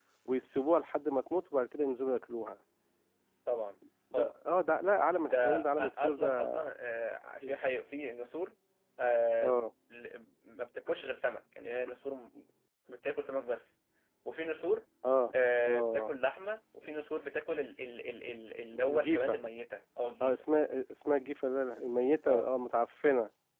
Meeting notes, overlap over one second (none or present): present